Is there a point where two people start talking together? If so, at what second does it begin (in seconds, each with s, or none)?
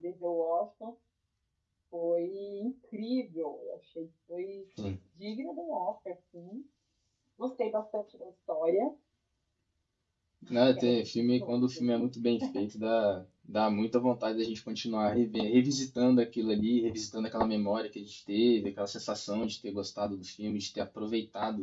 10.8 s